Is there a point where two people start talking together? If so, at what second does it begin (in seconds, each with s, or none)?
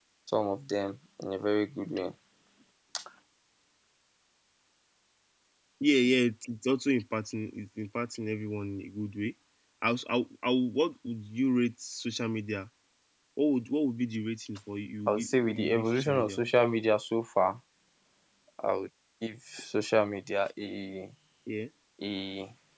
15.1 s